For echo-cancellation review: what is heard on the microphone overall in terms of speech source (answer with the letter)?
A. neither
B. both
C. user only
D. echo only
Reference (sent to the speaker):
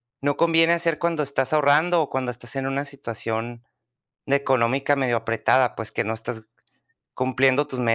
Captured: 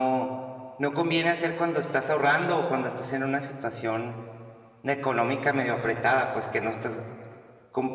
D